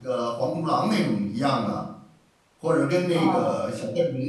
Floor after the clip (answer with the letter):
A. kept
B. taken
A